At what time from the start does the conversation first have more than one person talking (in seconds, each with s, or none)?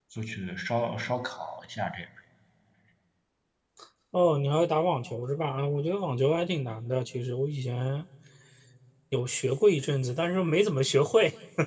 none